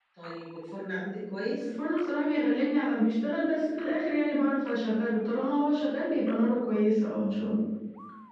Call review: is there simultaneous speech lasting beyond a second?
No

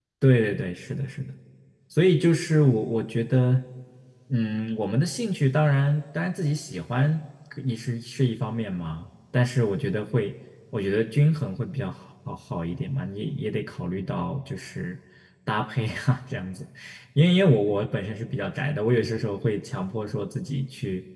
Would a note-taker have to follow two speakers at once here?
No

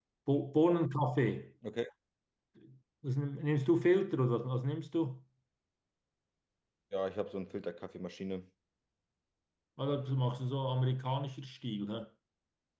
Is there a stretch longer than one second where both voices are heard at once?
No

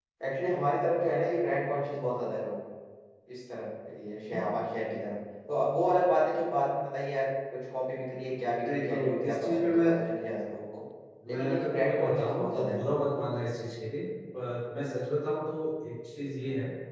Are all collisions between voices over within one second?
No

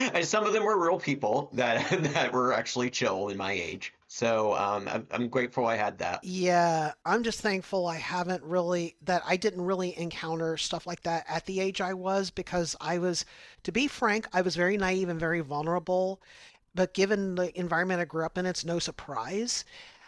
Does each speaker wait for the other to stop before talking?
Yes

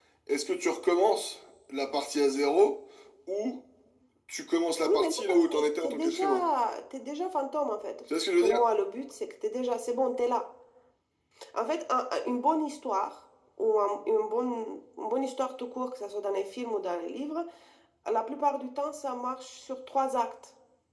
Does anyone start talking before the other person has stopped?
Yes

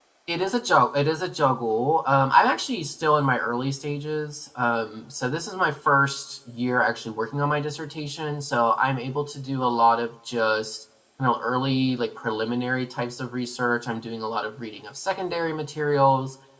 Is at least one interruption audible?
No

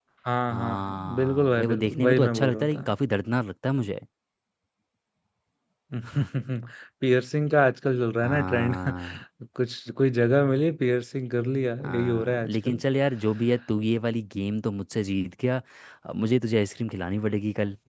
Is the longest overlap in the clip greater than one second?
Yes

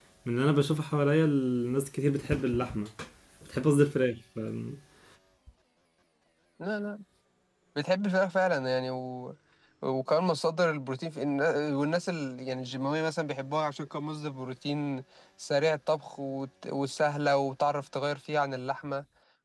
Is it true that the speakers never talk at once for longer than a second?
Yes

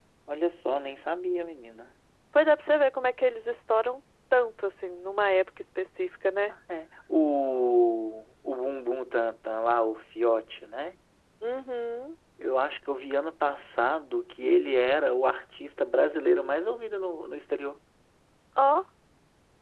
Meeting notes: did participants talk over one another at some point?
No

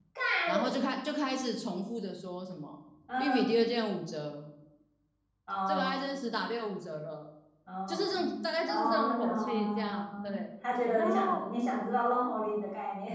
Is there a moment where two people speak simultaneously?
Yes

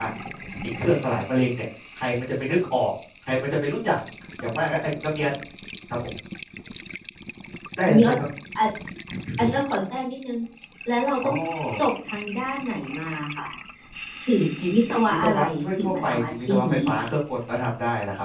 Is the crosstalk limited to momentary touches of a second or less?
No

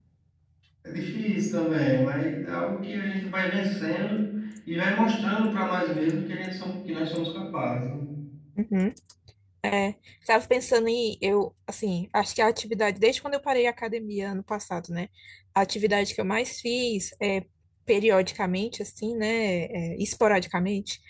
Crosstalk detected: No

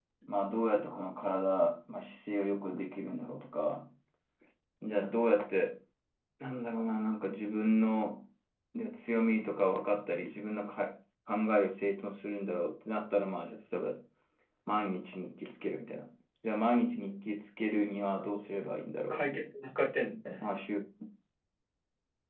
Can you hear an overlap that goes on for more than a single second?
No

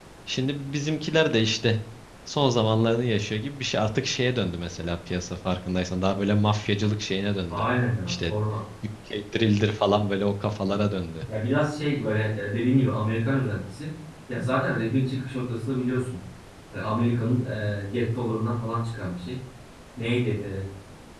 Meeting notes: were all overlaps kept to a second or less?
Yes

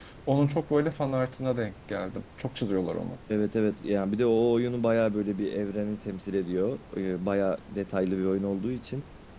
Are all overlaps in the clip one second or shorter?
Yes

